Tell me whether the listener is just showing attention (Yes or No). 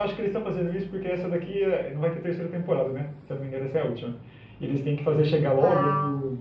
Yes